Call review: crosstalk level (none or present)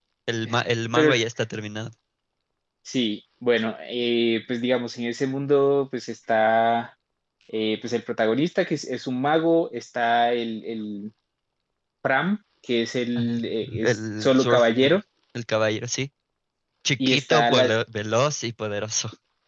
present